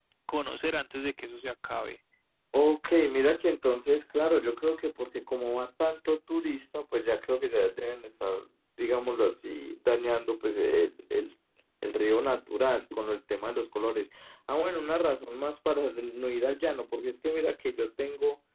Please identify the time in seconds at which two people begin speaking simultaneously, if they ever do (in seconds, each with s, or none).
none